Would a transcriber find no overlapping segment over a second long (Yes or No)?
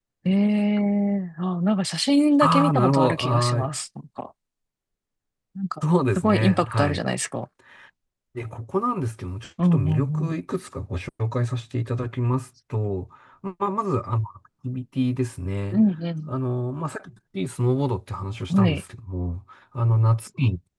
No